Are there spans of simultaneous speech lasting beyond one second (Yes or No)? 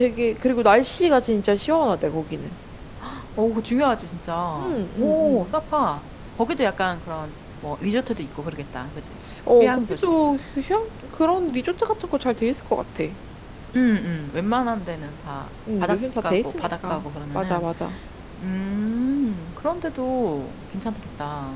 Yes